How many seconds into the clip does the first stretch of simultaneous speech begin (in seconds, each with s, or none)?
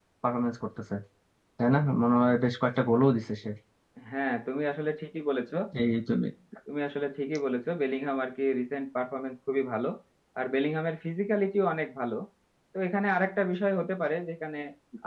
none